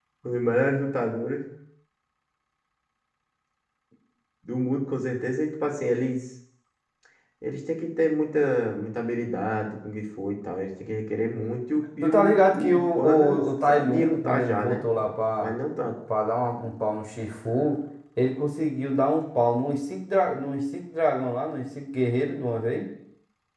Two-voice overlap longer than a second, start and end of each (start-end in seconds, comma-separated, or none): 12.0-14.9